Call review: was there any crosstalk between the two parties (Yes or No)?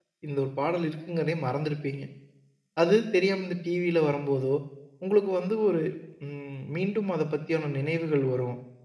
No